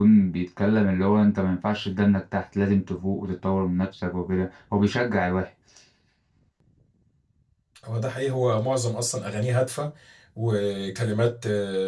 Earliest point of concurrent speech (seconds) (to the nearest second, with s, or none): none